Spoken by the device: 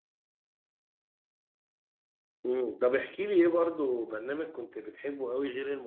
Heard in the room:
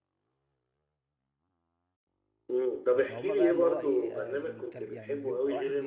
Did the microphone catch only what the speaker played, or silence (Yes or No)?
No